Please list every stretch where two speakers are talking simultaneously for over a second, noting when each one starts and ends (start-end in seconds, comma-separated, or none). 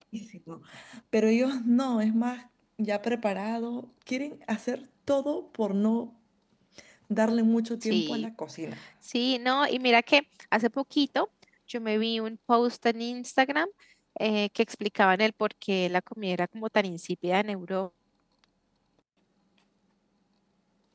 none